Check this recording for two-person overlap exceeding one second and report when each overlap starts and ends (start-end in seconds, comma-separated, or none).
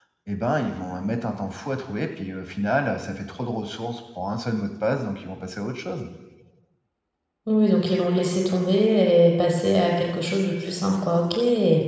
none